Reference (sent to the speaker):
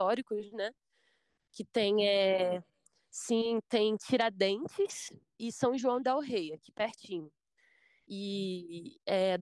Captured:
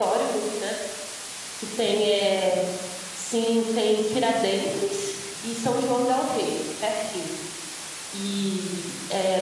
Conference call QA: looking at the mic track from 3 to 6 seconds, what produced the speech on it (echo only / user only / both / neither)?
echo only